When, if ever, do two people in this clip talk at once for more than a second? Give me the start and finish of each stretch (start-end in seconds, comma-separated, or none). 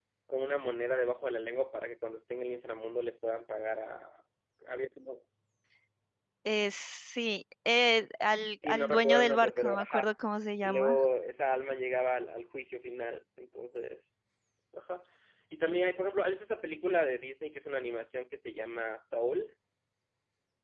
8.6-10.1